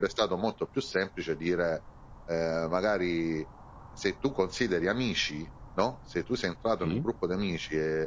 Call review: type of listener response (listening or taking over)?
listening